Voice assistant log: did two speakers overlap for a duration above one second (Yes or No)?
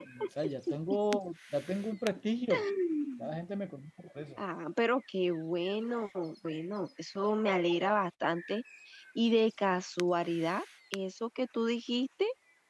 No